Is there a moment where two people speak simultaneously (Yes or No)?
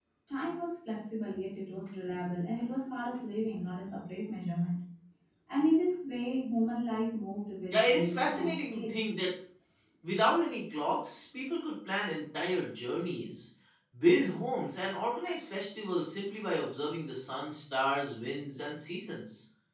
Yes